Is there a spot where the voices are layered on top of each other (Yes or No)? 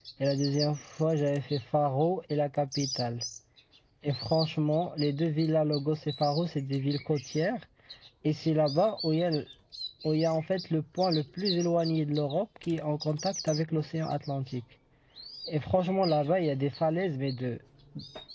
No